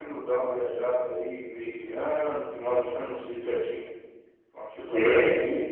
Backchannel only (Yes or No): Yes